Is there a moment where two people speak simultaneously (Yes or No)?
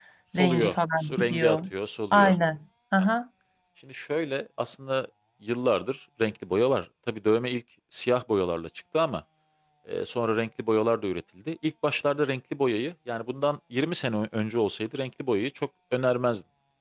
Yes